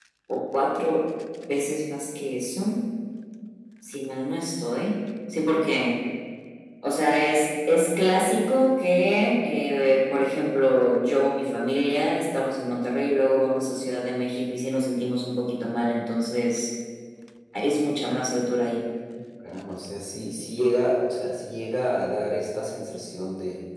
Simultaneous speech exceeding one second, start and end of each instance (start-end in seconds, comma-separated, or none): none